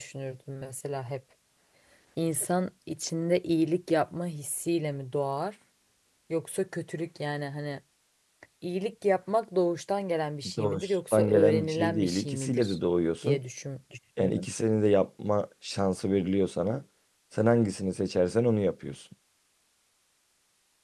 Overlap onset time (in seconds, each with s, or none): 10.6 s